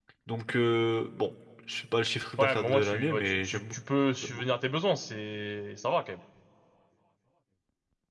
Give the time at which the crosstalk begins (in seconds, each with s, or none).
2.4 s